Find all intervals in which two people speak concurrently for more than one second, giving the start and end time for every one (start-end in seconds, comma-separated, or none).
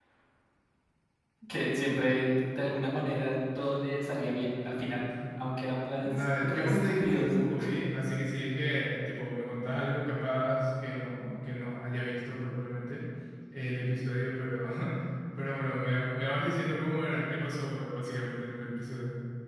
6.0-7.3